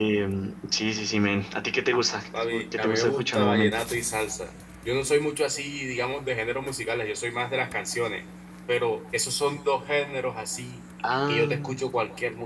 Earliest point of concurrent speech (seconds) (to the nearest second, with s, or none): 2 s